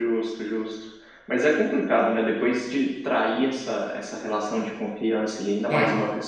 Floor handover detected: No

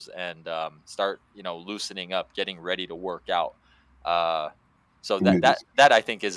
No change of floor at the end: Yes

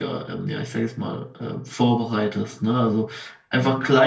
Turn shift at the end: No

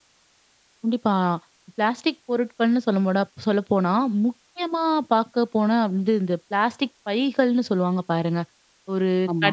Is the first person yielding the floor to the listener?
No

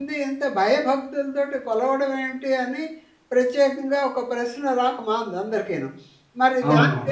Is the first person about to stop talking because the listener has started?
Yes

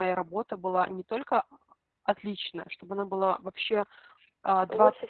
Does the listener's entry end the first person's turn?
No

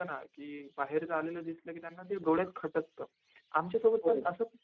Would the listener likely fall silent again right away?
Yes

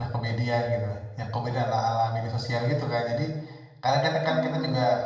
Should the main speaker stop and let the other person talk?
No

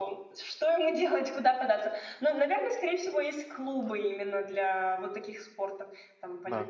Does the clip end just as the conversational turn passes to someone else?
No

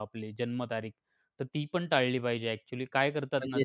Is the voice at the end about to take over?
No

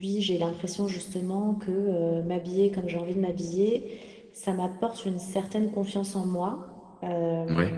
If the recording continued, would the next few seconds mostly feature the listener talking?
No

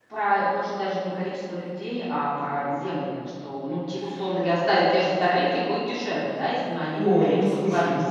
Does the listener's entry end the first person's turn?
Yes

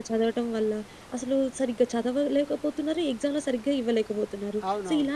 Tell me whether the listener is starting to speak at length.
No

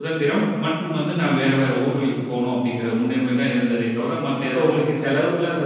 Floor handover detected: Yes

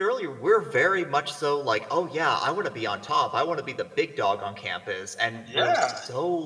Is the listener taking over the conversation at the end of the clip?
No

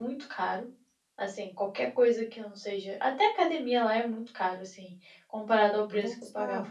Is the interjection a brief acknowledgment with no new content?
No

